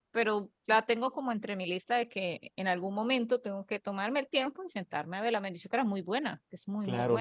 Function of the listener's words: taking over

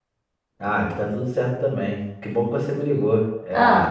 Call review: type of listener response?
listening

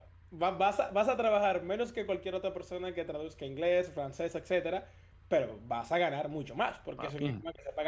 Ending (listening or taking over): listening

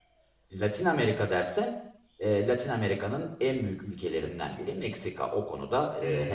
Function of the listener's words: taking over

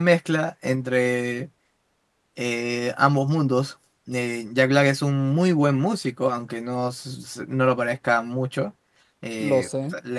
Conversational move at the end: listening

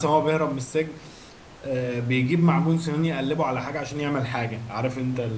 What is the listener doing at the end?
taking over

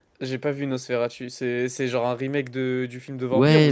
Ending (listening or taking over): taking over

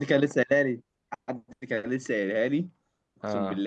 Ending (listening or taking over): listening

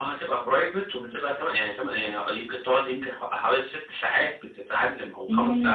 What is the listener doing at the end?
taking over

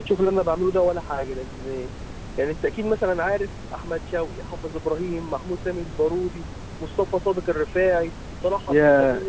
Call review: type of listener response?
taking over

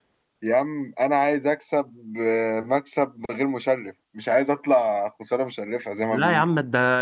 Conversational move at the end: taking over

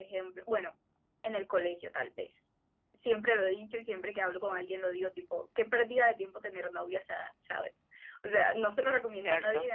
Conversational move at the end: listening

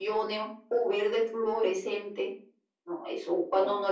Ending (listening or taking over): listening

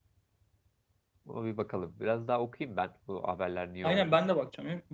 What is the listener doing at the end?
taking over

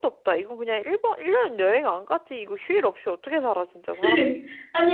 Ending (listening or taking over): taking over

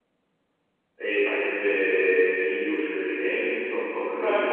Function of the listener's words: listening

